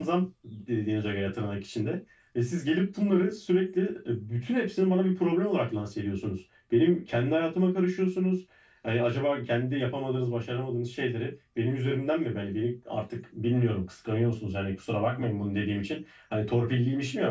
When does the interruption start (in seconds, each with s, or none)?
none